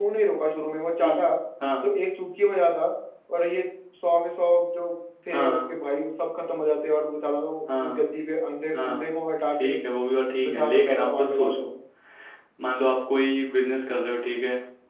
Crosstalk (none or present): present